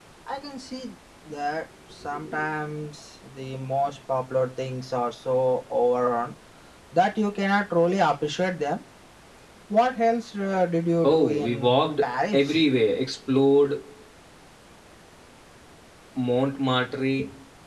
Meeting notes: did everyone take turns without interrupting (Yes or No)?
No